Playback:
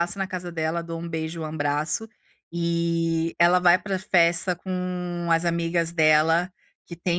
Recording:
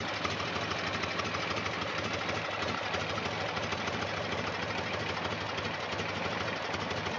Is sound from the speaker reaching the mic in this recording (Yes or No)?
No